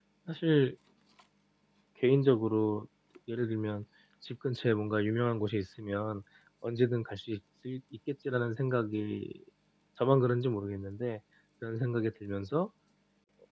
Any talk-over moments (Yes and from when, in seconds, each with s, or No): No